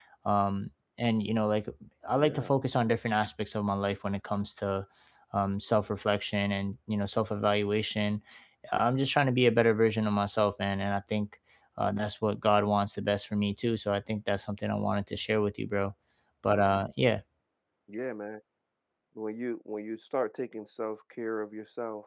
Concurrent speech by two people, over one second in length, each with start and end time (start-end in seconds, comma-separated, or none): none